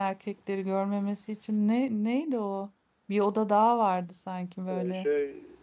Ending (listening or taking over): taking over